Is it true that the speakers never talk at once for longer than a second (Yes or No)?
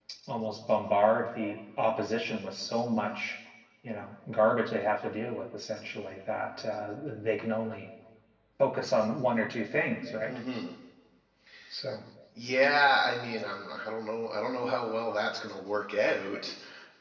Yes